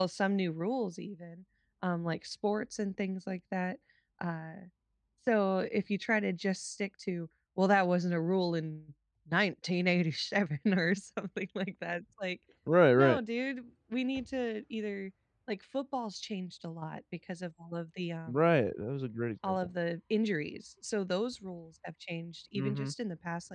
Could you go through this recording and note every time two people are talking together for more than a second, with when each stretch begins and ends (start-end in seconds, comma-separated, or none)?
none